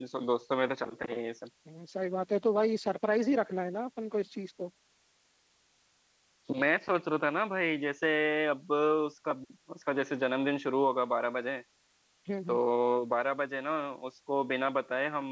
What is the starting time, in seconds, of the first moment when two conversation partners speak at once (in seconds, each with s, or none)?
none